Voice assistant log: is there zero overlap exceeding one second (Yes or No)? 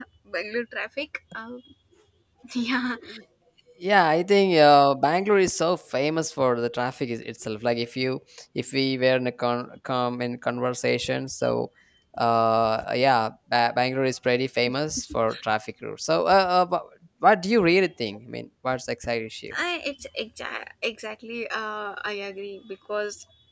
Yes